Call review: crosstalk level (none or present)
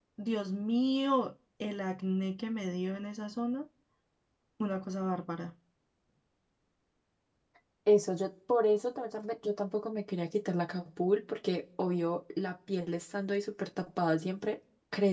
none